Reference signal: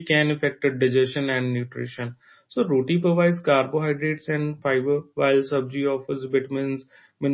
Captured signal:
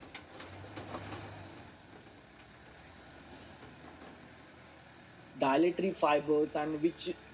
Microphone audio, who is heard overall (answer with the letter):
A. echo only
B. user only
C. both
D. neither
B